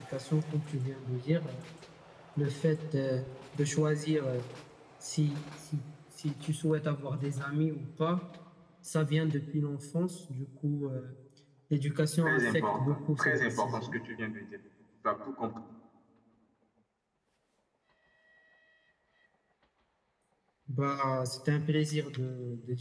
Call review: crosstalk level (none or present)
present